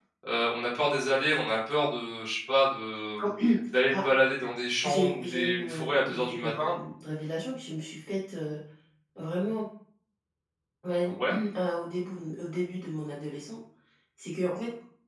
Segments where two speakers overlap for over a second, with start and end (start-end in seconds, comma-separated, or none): 4.8-6.8